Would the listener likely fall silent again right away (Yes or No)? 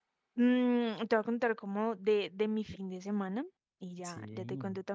Yes